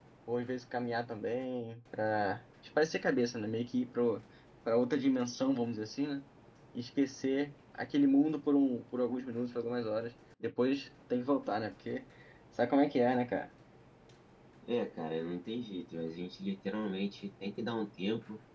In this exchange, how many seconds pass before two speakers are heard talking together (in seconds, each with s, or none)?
none